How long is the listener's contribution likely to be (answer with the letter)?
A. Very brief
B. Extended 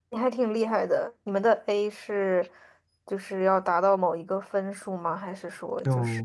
B